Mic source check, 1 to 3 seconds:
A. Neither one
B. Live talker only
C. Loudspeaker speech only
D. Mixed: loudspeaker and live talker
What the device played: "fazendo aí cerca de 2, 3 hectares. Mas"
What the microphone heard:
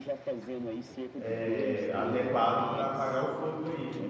D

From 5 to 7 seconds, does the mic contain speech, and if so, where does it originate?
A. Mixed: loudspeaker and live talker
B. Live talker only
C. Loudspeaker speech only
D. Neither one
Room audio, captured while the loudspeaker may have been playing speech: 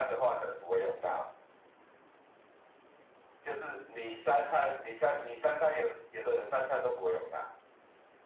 C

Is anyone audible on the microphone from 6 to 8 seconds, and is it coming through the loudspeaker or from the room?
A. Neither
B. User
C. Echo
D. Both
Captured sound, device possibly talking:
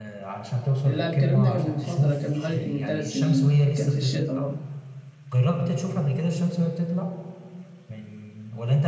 C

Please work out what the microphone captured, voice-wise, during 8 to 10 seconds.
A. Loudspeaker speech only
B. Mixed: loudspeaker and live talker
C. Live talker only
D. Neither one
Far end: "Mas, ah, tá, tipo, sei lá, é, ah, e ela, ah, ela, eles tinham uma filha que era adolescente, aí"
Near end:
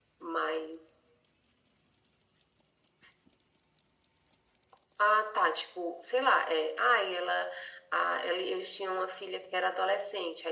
A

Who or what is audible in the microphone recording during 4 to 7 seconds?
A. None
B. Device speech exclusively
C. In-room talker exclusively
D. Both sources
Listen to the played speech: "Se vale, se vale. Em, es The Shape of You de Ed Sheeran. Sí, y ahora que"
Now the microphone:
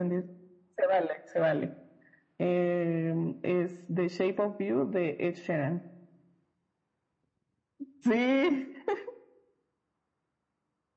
B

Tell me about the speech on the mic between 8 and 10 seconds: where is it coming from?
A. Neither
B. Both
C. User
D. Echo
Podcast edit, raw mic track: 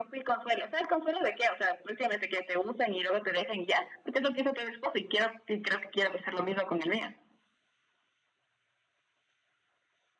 A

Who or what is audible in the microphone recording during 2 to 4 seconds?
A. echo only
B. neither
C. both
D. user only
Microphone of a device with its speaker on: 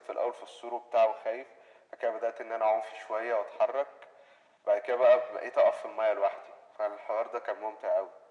A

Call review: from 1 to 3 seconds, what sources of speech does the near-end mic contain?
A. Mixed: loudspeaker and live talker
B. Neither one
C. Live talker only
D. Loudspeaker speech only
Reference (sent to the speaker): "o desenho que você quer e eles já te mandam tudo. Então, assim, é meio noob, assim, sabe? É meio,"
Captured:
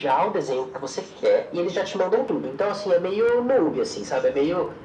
D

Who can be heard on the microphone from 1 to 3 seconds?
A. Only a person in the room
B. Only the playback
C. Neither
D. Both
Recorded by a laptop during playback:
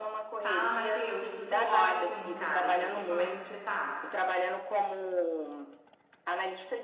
D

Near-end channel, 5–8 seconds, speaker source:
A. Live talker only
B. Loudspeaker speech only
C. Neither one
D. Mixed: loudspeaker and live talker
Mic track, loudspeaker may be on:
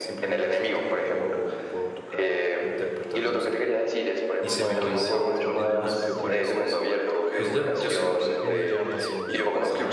D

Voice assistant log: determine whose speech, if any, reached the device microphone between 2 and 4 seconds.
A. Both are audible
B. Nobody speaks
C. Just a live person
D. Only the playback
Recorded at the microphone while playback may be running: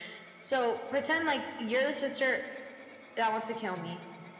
D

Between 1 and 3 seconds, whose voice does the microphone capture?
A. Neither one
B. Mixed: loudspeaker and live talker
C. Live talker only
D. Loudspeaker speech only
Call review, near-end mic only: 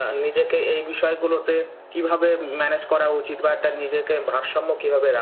D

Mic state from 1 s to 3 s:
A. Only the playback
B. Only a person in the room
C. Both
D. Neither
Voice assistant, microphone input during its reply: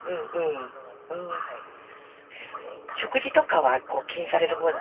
C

